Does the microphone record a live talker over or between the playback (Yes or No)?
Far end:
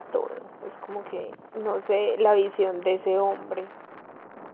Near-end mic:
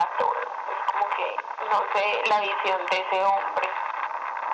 No